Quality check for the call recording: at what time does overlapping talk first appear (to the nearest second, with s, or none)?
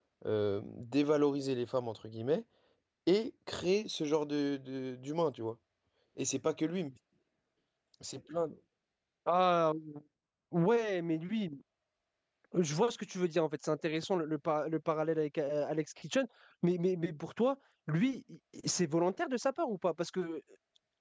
none